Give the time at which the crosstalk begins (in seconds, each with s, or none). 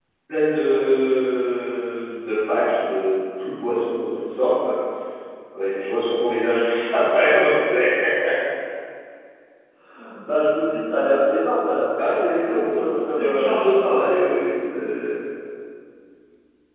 12.0 s